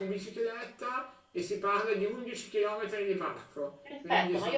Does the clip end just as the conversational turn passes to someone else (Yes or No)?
Yes